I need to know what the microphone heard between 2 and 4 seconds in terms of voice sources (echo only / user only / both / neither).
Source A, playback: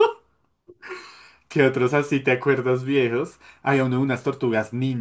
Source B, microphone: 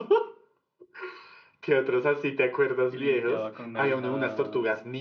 both